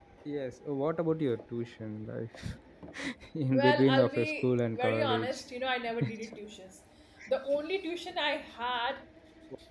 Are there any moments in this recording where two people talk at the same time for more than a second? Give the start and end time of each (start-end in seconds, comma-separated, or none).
3.5-5.4